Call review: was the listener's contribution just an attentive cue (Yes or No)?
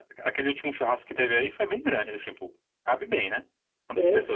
No